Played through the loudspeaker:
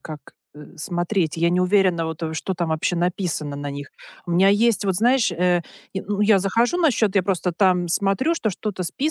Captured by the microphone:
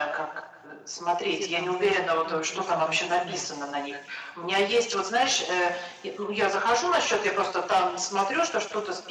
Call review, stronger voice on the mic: echo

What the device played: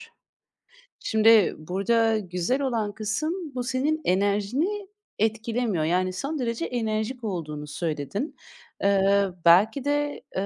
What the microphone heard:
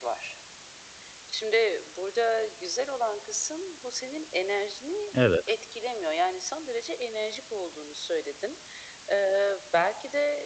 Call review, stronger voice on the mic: user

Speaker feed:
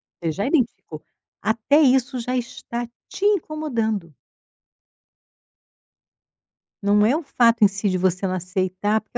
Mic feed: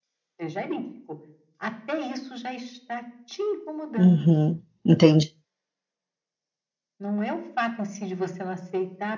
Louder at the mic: user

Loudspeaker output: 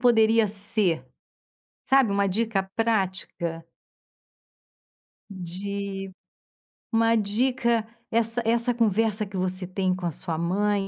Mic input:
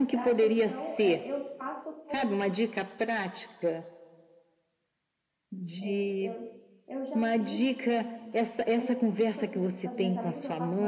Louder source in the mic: echo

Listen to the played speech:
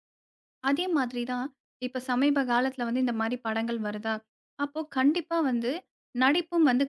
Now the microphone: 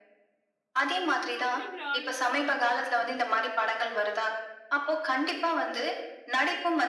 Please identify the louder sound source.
echo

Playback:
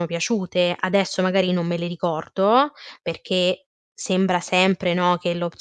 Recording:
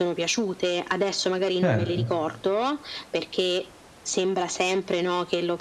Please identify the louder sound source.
user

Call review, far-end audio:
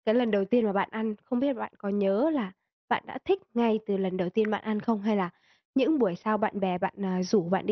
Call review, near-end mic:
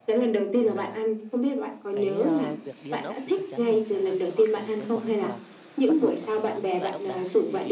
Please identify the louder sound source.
echo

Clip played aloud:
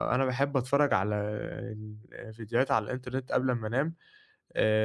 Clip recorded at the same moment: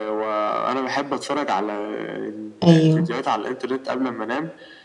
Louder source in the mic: user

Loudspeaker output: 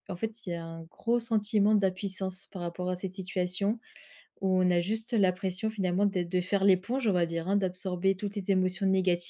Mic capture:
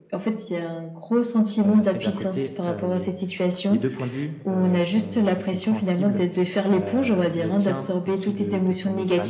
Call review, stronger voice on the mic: echo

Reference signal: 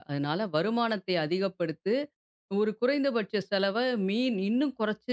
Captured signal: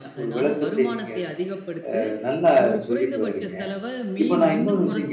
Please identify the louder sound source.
user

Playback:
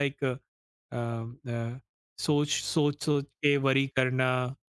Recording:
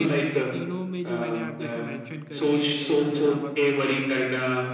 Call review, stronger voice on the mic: echo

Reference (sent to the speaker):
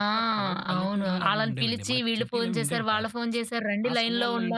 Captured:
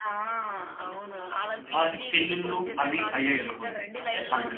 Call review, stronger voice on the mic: user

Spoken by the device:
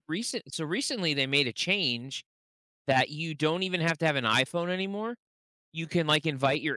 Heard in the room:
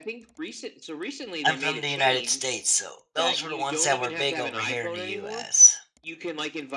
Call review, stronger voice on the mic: user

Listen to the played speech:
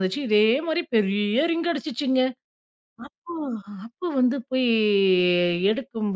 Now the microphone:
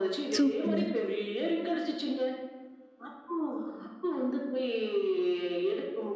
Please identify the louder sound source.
user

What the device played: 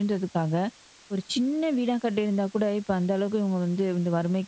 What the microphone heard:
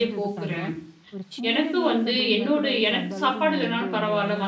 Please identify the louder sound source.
user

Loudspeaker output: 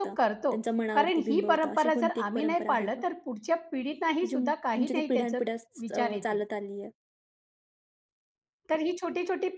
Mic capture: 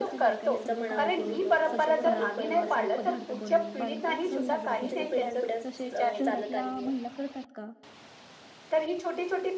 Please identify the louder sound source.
echo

